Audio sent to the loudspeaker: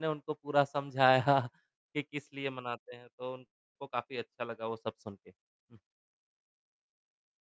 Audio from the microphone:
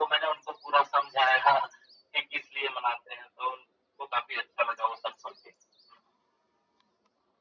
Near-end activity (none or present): none